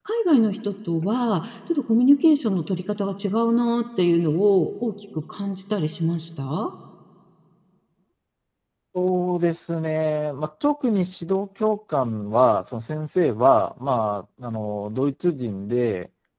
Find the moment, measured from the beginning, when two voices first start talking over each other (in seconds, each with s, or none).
none